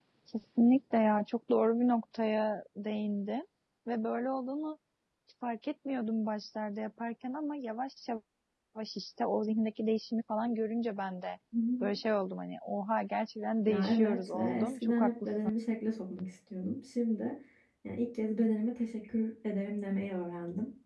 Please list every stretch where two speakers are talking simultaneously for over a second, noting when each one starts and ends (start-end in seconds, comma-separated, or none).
13.7-15.5